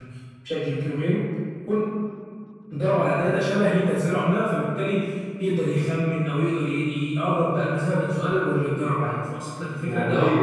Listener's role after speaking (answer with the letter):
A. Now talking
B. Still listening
A